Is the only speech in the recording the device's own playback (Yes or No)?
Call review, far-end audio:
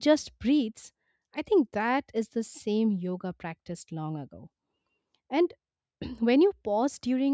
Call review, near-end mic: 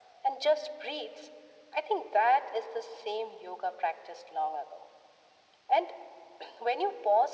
Yes